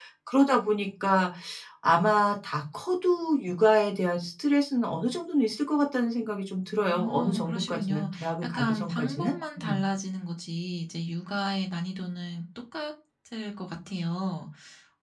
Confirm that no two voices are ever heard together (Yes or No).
No